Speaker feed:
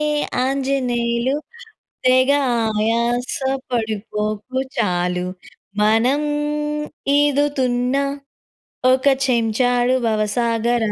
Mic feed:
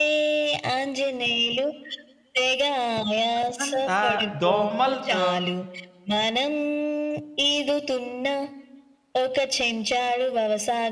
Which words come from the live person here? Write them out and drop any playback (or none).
నైటంతా దోమలతో